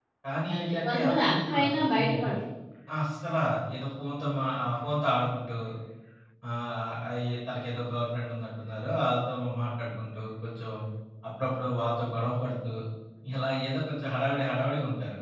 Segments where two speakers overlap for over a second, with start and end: 0.6-2.2

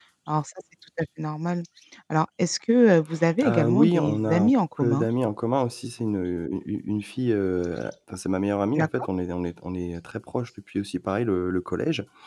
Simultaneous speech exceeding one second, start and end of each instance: 3.4-5.1

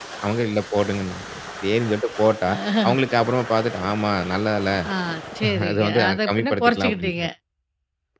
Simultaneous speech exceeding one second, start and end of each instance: 5.7-7.2

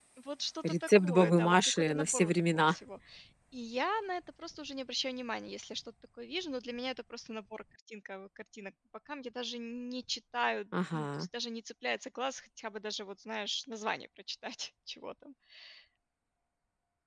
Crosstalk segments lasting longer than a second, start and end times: 0.7-2.8

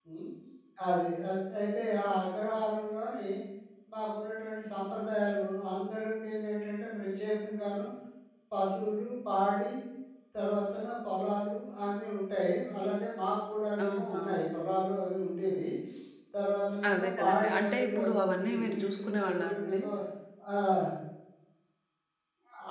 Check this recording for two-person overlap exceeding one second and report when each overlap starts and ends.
16.9-19.8

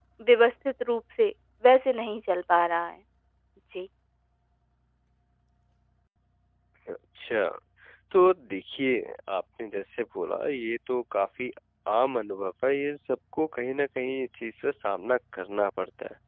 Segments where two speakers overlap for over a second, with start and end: none

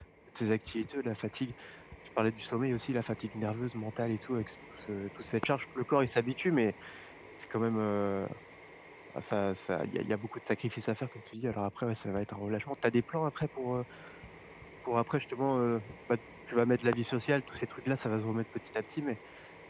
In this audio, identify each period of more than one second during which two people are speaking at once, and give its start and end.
none

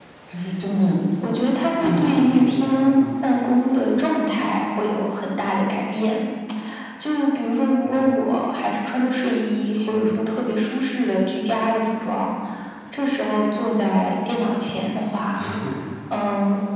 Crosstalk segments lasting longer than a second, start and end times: 1.8-3.0

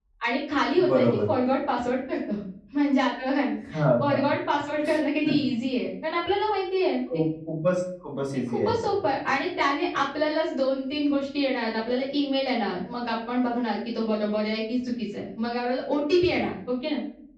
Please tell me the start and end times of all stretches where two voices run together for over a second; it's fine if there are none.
none

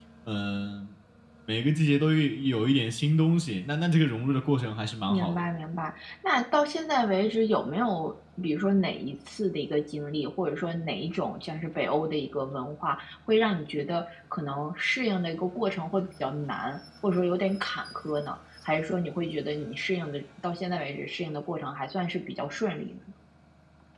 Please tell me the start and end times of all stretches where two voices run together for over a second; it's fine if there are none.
none

